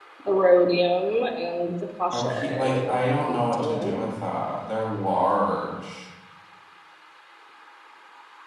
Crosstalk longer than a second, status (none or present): present